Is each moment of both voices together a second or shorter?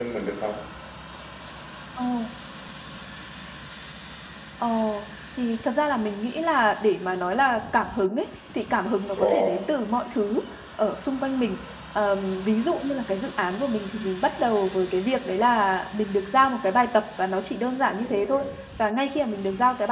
Yes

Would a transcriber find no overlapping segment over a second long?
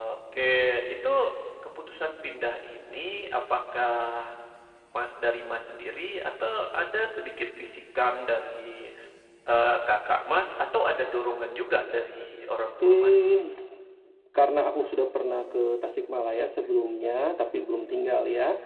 Yes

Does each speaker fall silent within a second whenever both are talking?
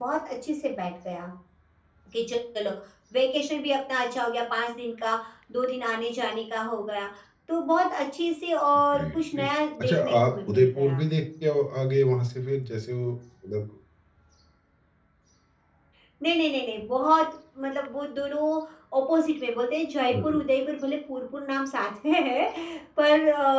No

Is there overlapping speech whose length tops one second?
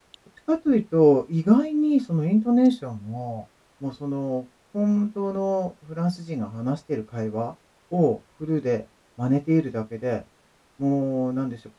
No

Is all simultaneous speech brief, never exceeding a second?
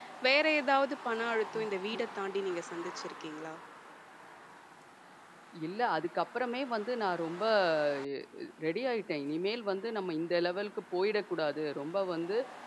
Yes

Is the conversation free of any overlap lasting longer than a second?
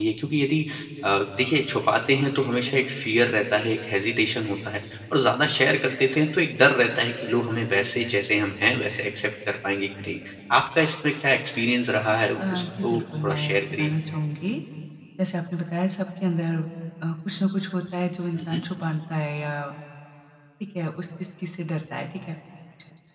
No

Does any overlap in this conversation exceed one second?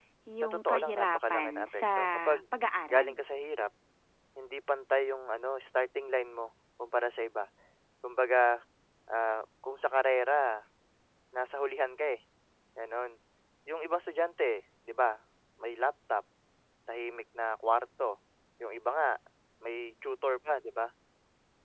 Yes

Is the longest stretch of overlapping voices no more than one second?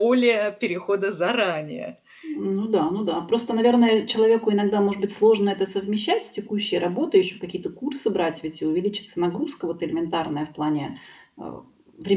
Yes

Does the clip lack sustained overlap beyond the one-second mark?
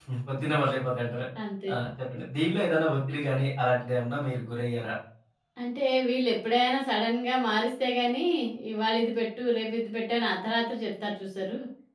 Yes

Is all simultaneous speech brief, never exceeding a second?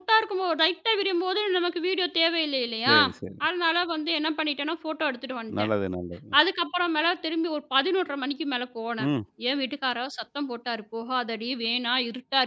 Yes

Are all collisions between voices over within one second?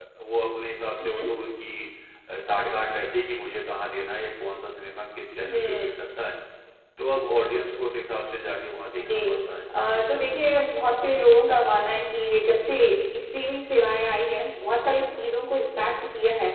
Yes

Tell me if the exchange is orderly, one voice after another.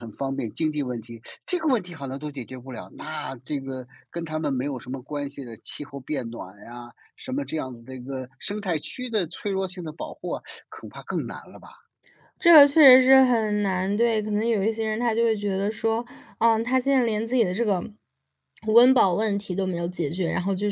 Yes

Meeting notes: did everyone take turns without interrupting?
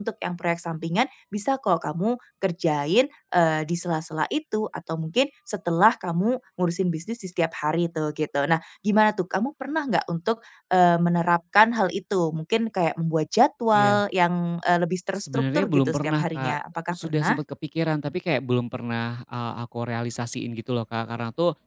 No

